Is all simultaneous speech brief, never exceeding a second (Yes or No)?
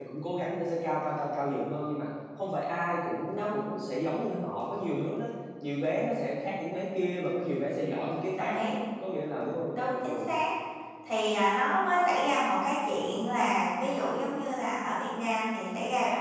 Yes